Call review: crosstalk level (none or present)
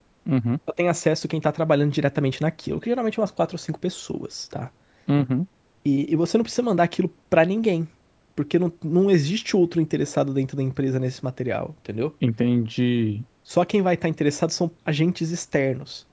none